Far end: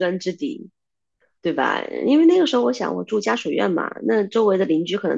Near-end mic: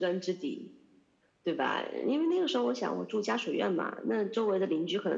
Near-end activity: none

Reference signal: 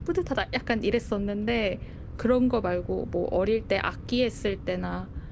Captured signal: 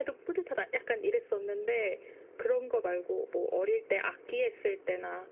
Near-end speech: none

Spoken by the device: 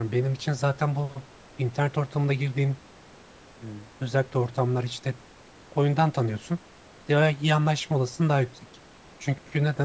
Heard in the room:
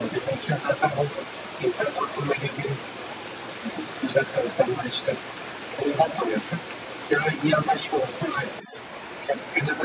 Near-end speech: none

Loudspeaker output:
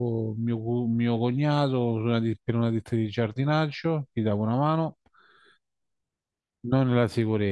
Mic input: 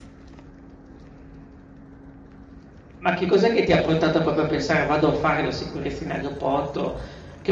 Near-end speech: present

